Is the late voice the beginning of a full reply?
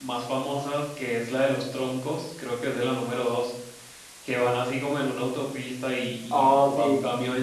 No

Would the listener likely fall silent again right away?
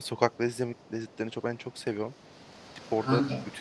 Yes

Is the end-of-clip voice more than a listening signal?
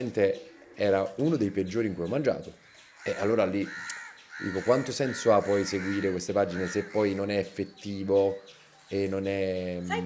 Yes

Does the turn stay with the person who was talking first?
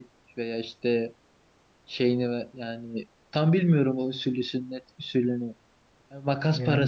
Yes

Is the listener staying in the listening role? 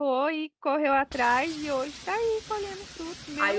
No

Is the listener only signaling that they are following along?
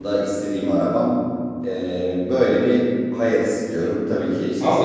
No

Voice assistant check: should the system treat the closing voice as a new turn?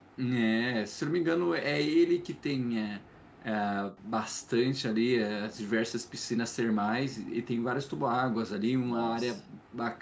No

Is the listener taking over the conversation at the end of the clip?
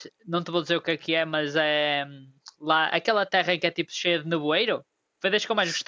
Yes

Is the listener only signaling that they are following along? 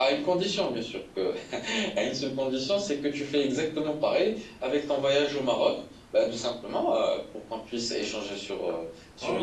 No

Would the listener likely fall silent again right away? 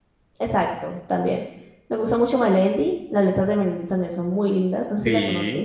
No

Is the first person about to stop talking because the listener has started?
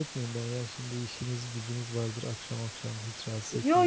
Yes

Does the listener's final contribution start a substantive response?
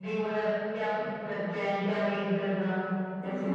Yes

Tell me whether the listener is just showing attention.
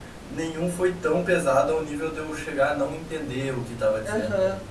No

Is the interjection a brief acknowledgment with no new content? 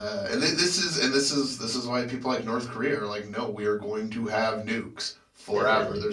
Yes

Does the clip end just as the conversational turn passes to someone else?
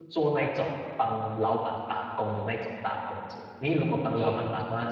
No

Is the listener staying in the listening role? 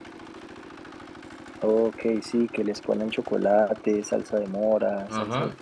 No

